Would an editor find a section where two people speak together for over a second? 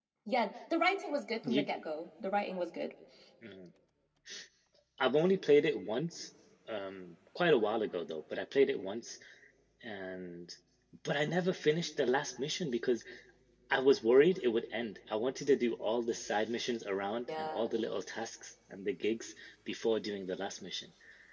No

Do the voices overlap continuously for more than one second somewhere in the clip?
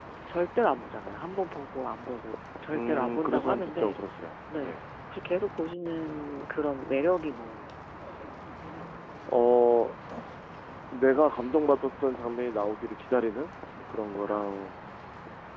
Yes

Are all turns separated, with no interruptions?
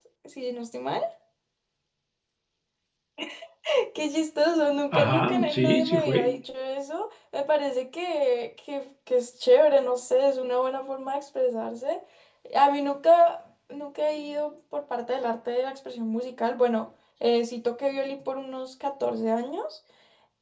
No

